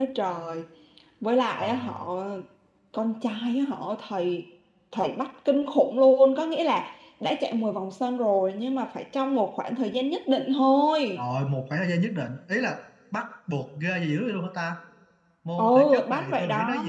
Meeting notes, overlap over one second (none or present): present